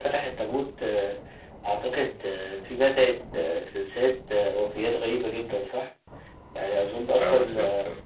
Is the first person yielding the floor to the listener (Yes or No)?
No